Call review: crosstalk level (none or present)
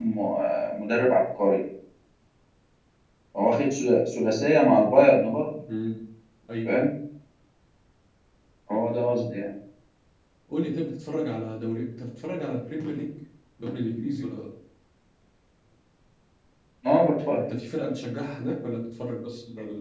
none